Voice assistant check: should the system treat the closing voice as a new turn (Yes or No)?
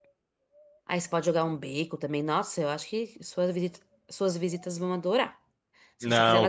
Yes